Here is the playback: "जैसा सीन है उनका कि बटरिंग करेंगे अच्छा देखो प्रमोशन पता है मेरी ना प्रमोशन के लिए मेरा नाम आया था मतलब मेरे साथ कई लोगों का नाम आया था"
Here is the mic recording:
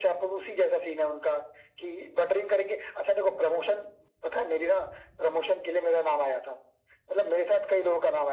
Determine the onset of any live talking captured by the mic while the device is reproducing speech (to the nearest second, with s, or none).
none